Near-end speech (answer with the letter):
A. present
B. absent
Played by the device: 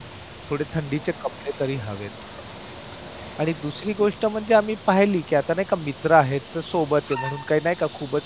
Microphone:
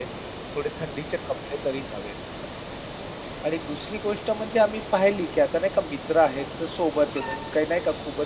B